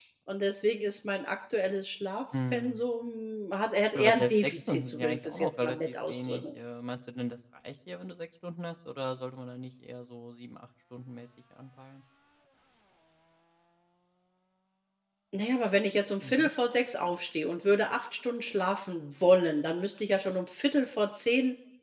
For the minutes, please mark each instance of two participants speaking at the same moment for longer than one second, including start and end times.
4.0-6.4

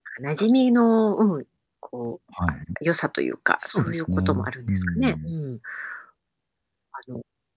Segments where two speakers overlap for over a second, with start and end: 3.6-5.3

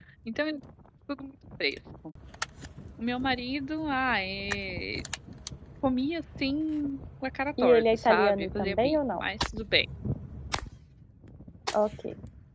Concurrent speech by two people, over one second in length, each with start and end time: 7.6-9.2

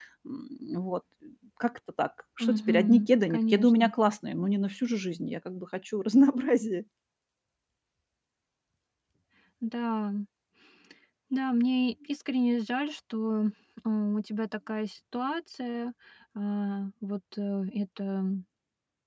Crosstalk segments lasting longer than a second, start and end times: 2.4-3.9

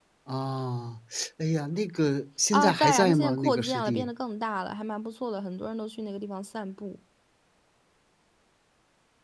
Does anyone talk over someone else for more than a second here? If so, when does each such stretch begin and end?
2.5-4.1

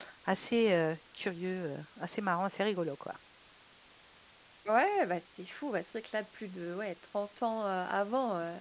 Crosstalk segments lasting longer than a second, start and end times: none

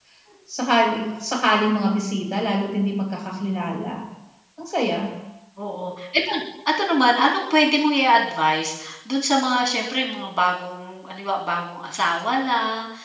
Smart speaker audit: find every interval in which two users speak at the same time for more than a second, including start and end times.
none

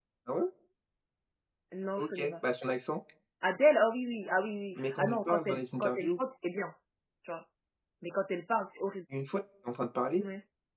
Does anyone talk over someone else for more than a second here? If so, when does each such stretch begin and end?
4.8-6.1

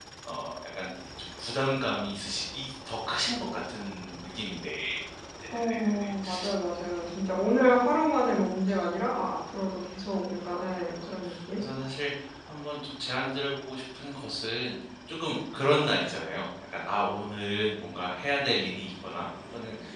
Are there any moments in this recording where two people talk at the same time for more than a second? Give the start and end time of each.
none

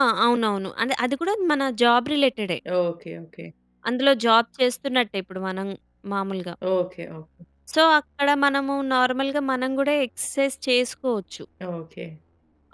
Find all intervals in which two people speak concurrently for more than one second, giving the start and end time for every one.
none

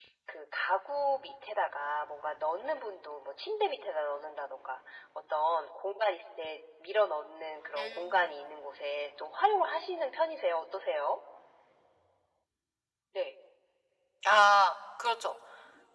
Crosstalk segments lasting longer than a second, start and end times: none

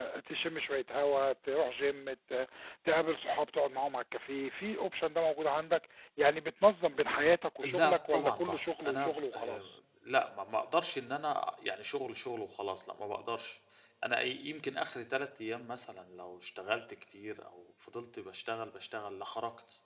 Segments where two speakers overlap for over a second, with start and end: 7.6-9.7

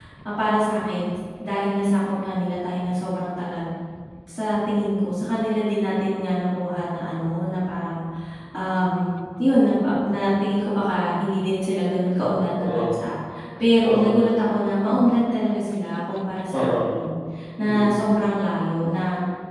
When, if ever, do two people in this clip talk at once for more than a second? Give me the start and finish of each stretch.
none

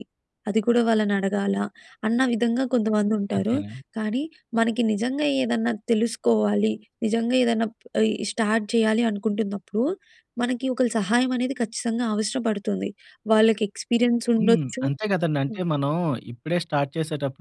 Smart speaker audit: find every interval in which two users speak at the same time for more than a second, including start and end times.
none

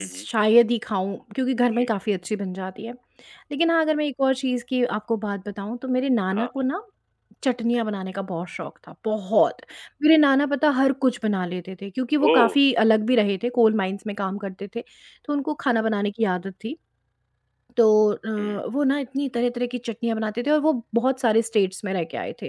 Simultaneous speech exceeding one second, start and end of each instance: none

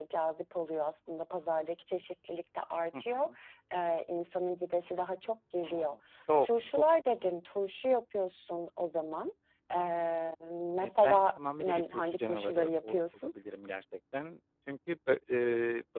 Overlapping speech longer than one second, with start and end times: 10.8-13.3

